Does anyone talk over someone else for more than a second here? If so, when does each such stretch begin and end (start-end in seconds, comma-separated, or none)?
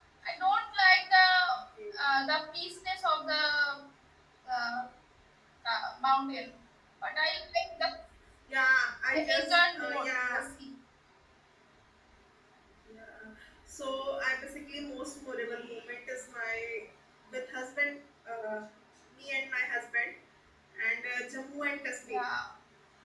9.1-10.4